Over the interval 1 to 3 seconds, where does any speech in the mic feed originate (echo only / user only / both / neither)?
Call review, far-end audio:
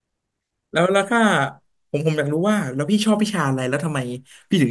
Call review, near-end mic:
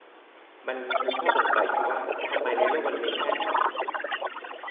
both